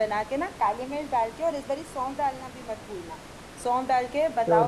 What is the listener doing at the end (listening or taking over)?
taking over